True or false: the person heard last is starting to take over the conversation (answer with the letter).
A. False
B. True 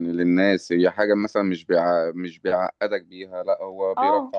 A